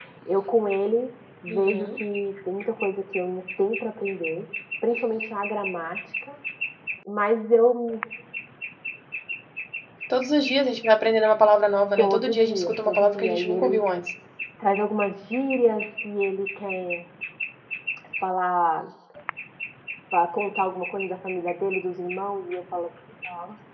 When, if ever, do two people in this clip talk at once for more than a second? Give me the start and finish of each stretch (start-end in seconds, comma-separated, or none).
12.0-13.8